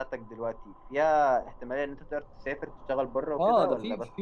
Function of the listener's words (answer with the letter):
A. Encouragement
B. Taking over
B